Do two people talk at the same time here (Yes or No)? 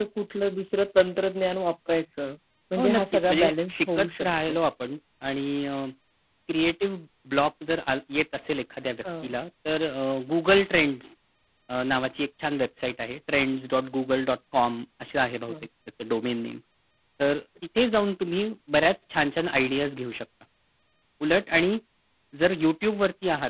Yes